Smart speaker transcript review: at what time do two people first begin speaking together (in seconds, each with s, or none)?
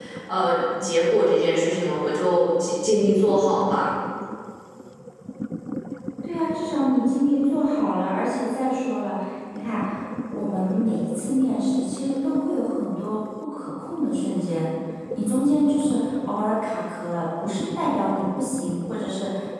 none